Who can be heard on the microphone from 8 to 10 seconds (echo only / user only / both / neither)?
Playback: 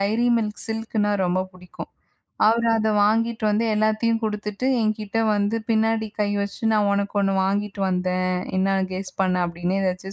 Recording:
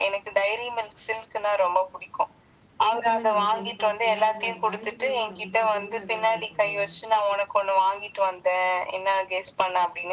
echo only